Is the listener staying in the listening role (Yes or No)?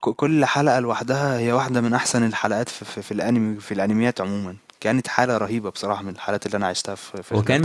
No